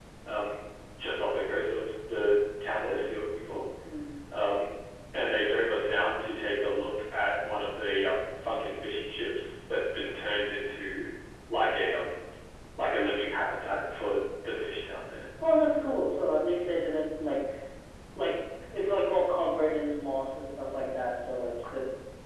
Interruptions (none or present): none